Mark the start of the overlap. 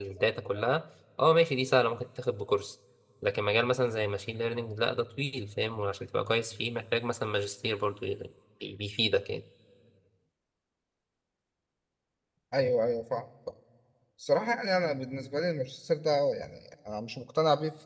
none

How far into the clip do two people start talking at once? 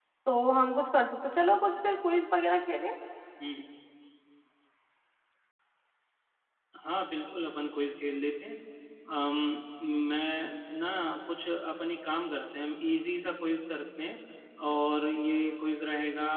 none

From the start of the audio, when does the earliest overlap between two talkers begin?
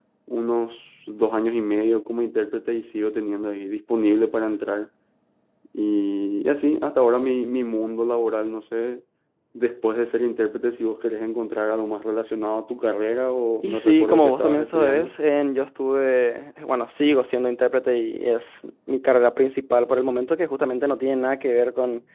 13.6 s

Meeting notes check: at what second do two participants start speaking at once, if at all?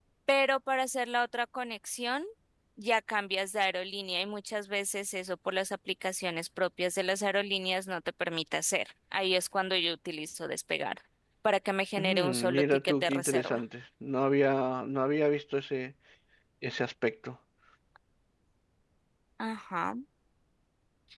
12.0 s

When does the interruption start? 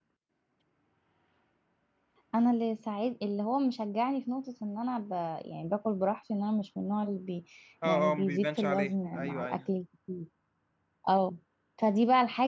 7.8 s

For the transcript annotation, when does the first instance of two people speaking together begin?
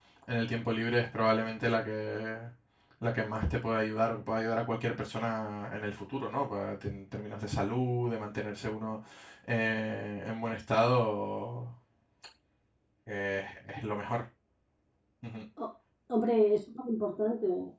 none

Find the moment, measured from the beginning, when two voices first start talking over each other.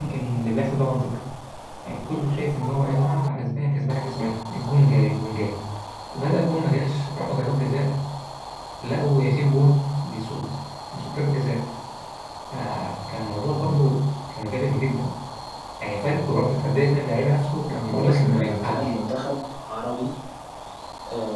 17.6 s

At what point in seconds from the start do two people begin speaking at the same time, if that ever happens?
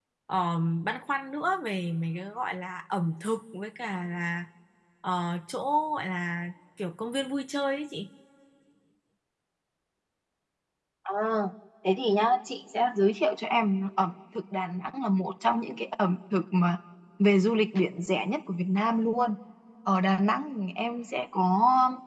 none

